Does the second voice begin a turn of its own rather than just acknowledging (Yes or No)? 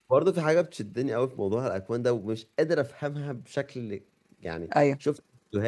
No